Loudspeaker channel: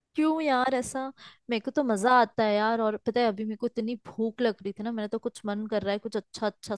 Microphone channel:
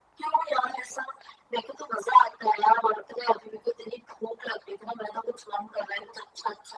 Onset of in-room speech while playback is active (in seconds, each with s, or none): none